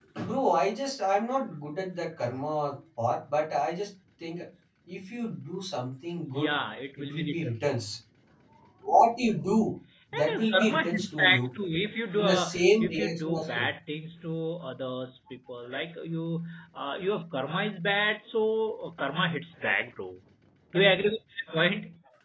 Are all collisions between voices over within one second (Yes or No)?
No